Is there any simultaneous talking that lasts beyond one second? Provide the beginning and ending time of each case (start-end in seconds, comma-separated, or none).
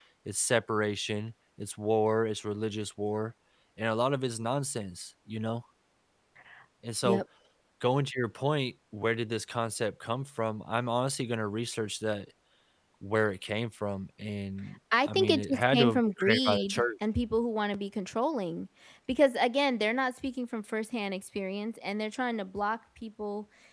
15.1-16.8